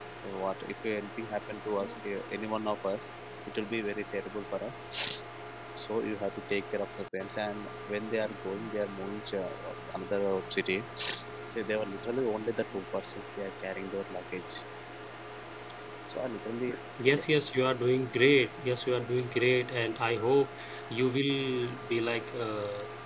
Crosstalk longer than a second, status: none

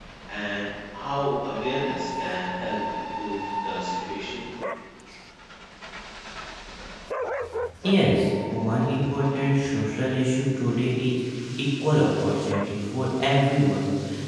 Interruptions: none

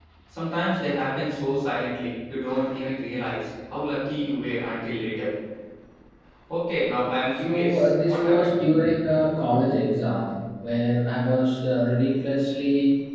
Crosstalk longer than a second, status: present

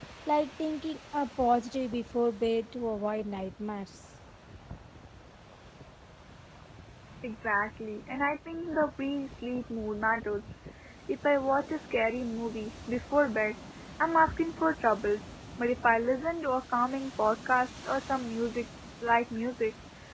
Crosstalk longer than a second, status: none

